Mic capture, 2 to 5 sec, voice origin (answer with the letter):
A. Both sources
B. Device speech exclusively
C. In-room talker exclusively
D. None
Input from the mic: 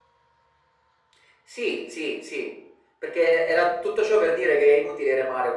B